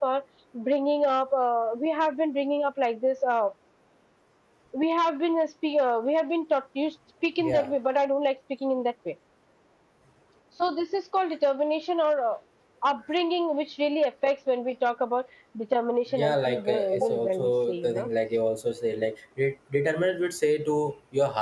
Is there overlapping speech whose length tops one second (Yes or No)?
Yes